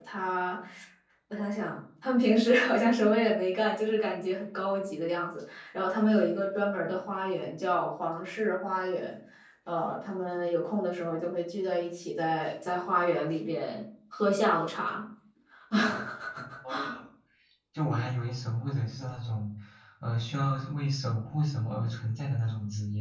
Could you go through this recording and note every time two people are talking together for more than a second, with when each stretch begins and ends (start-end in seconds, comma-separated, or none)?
none